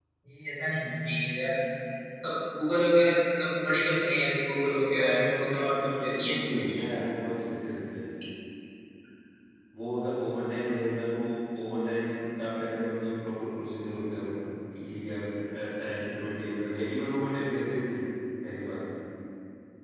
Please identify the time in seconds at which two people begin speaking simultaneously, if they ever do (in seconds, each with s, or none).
4.6 s